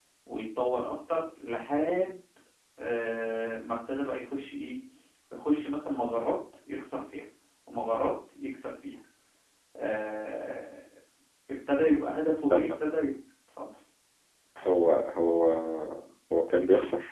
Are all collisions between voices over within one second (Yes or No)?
Yes